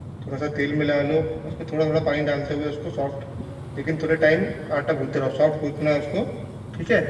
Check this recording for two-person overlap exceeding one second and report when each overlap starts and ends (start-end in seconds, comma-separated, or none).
none